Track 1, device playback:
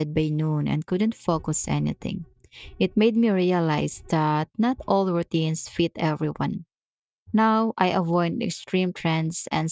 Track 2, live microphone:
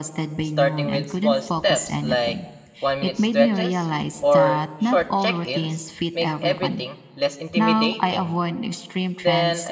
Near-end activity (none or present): present